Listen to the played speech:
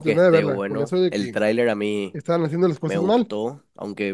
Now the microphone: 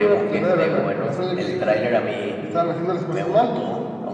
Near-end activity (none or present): none